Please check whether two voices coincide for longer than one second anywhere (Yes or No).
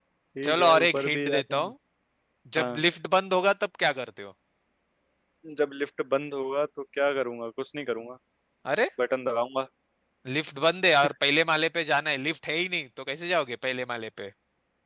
Yes